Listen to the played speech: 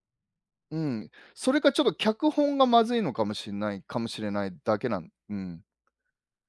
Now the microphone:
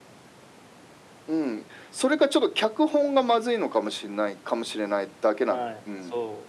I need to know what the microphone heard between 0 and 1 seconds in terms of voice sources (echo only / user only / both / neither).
neither